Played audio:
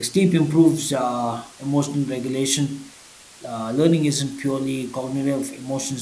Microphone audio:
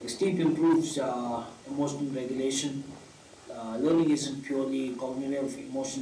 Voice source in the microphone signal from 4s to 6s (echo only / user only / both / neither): echo only